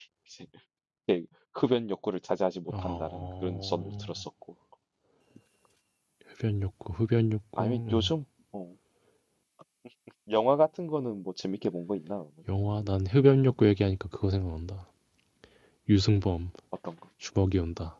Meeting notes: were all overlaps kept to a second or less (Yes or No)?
No